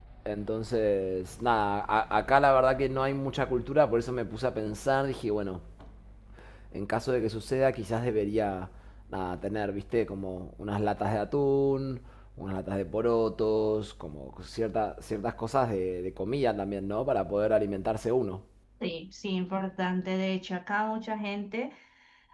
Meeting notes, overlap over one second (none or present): none